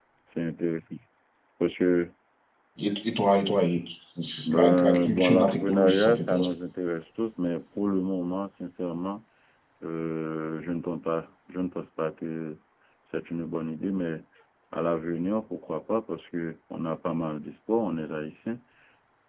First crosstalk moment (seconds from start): 4 s

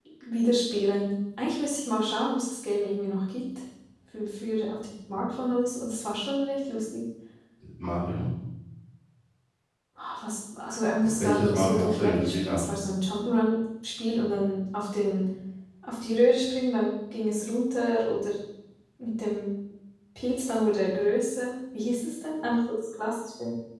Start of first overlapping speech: 11 s

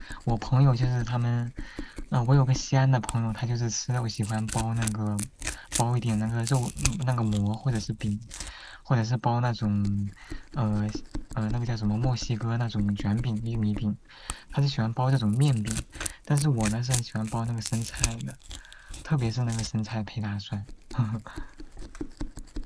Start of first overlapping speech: none

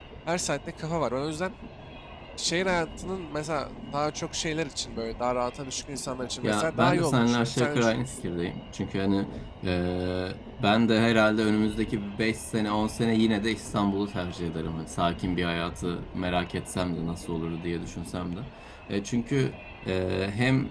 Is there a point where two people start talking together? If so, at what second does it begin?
6 s

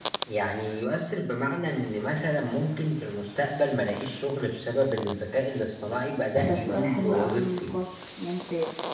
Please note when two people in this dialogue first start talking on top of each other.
6 s

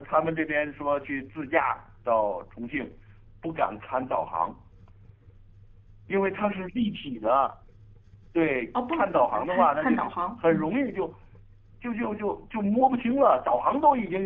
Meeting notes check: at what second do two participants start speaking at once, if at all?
9 s

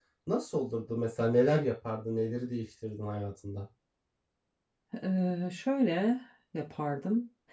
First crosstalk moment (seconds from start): none

